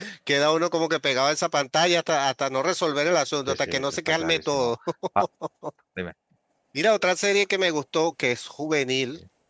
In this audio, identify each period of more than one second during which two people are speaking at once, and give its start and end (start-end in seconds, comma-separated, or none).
3.5-4.7